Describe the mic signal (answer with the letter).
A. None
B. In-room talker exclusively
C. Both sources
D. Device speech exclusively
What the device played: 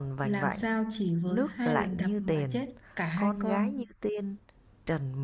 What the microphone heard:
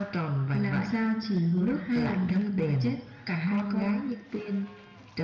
D